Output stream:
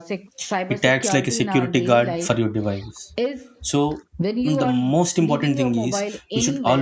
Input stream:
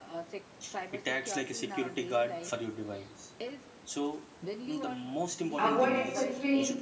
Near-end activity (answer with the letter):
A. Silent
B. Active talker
B